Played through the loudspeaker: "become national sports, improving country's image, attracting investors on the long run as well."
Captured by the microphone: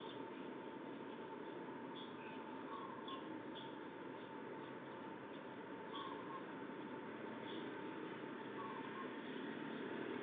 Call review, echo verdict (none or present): none